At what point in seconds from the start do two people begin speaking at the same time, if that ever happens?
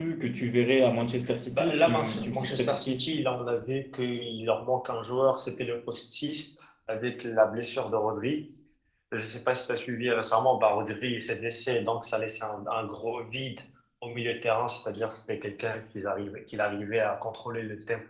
2 s

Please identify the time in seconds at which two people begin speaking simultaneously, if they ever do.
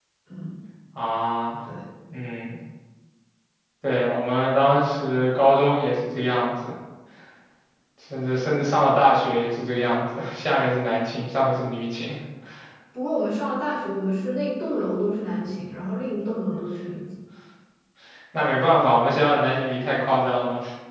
none

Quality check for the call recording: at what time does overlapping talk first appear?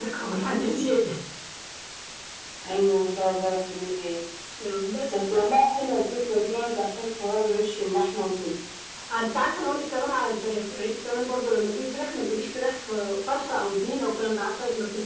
none

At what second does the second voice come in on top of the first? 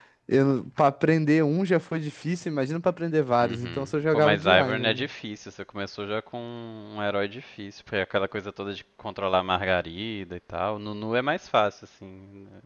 3 s

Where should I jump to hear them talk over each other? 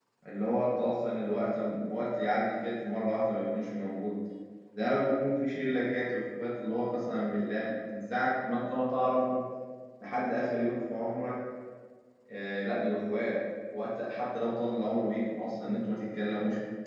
none

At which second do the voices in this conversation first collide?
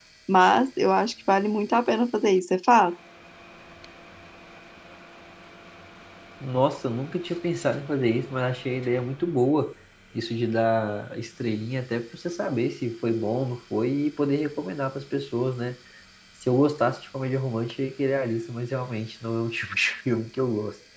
none

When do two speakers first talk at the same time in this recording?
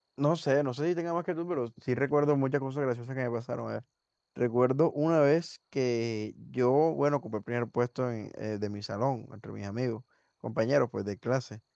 none

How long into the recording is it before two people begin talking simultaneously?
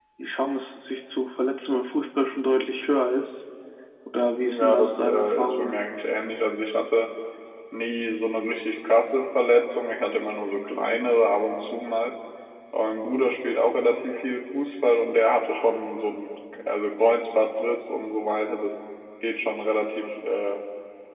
5 s

